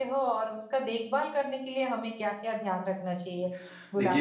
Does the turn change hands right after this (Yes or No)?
Yes